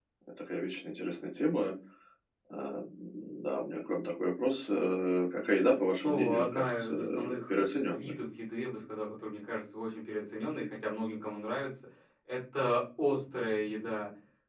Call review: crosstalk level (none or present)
present